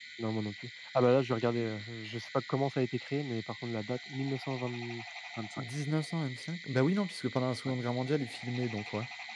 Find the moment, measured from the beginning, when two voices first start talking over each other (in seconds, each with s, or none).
none